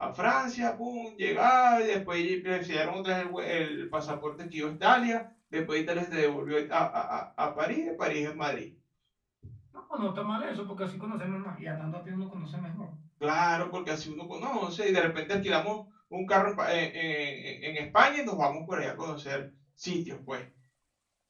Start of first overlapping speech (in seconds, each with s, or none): none